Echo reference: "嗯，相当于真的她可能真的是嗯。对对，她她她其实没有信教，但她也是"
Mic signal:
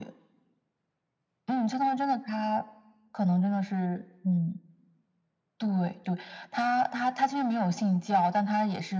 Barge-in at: none

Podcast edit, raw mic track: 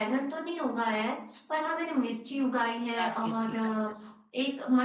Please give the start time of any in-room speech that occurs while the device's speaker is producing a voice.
2.9 s

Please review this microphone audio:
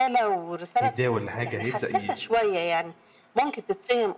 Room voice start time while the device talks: 0.8 s

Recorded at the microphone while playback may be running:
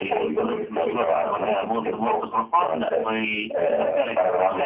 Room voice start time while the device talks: none

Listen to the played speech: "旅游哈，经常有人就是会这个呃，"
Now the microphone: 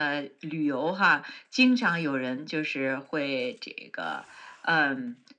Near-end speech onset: none

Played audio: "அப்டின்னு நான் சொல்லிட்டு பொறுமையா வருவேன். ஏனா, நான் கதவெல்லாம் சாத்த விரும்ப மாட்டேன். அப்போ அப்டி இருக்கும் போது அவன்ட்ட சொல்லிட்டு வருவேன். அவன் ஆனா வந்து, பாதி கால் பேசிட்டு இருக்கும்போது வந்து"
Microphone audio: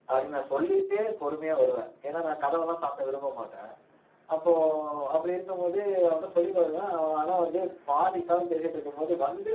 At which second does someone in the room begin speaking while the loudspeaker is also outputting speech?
none

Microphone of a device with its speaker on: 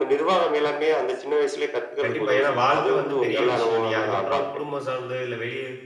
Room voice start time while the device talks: 2.0 s

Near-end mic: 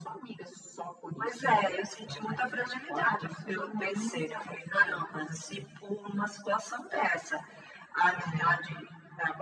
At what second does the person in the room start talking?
none

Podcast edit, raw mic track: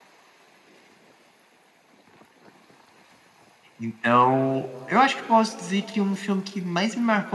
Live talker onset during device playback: 3.8 s

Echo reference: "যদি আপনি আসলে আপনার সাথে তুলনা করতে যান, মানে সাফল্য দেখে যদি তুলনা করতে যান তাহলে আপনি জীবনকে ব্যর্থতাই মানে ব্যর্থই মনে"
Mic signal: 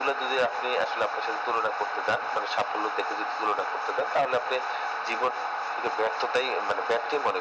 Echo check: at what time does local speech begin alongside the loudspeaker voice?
none

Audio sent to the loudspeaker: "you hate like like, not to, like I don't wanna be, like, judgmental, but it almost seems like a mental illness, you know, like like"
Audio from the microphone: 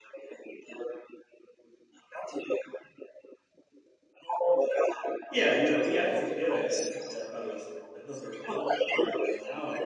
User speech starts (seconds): 5.3 s

